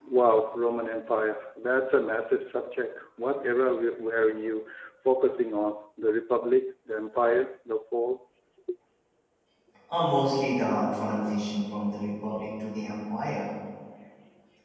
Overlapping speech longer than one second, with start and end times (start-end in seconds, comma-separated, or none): none